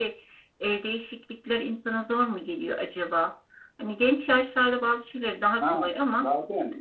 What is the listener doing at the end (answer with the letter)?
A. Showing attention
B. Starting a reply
B